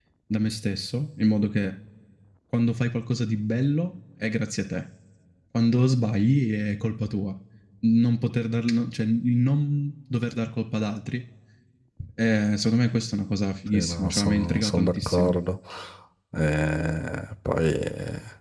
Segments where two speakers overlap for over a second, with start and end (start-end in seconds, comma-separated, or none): 13.7-15.4